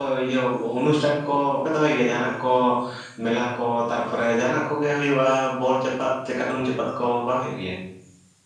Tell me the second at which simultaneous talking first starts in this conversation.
none

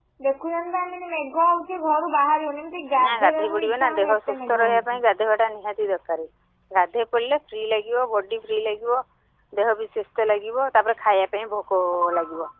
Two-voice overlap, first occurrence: 2.9 s

